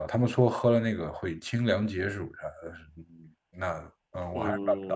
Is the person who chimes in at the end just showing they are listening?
No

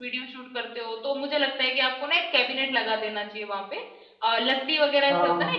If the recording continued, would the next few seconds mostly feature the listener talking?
No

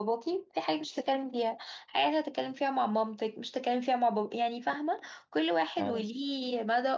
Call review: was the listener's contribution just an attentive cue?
Yes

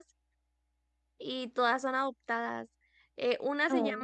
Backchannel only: Yes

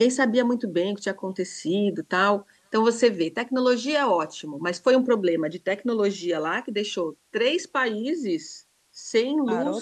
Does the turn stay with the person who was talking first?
Yes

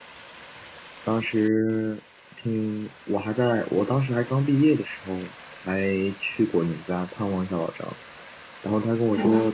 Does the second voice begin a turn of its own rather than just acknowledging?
No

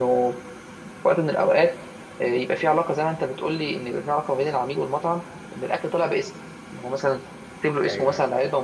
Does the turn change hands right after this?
No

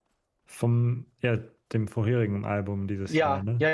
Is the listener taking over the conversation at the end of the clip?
Yes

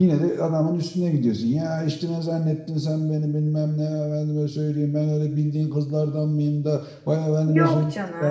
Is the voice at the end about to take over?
Yes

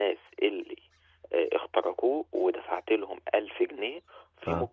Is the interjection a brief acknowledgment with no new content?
Yes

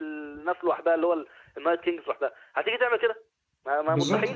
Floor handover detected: Yes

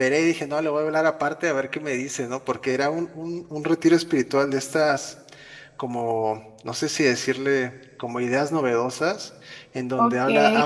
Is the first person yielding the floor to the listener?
Yes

